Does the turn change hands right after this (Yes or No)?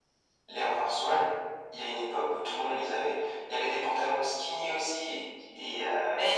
Yes